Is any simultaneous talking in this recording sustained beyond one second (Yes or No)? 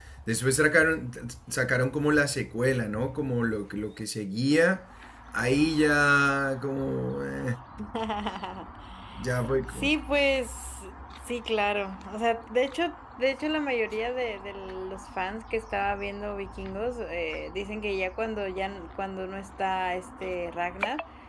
No